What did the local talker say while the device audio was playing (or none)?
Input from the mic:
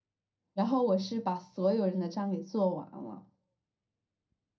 然后我是把所有人的账给做完了。